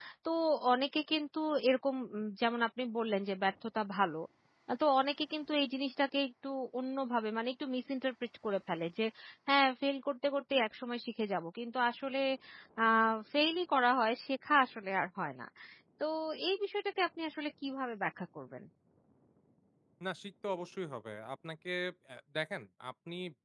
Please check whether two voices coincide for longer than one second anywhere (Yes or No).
No